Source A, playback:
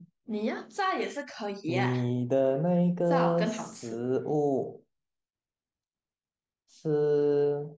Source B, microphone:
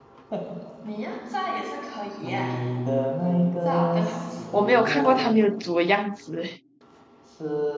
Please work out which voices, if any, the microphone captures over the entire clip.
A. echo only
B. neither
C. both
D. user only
C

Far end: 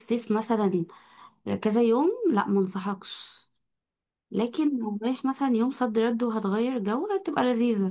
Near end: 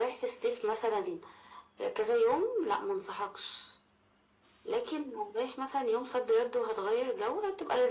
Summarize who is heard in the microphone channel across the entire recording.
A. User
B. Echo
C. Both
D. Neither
B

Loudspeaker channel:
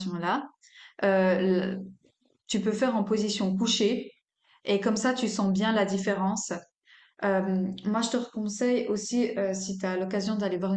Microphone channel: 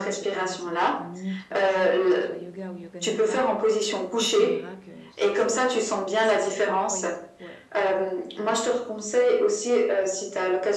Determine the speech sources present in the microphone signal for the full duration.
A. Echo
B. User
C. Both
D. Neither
C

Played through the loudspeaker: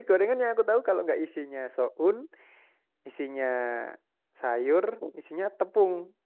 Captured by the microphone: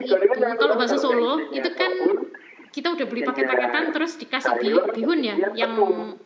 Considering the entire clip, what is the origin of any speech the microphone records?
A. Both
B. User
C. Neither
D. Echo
A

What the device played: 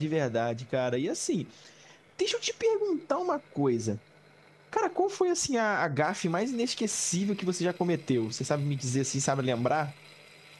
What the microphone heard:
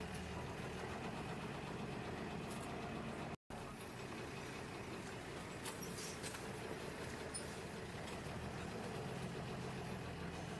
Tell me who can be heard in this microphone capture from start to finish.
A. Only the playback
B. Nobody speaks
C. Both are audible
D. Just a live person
B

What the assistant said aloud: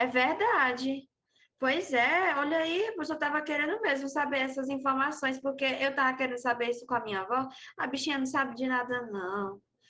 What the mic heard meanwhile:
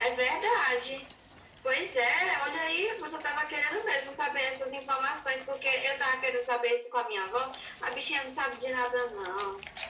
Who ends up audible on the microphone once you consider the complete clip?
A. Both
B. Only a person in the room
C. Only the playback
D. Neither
C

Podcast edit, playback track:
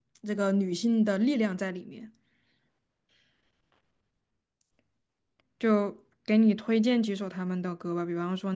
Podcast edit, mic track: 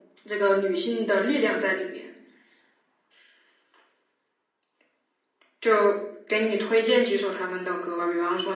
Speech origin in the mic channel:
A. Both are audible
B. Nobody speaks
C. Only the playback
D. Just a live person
C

